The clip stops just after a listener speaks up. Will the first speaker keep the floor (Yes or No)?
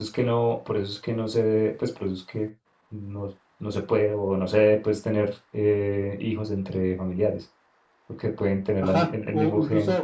No